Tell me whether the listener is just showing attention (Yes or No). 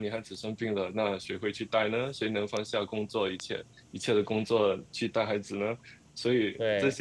Yes